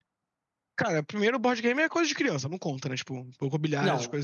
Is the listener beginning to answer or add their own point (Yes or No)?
Yes